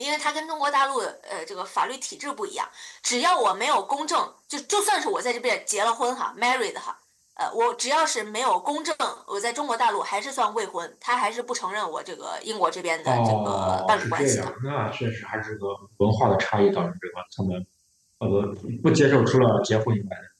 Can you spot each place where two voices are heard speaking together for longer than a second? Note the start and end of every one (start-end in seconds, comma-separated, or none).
13.1-14.5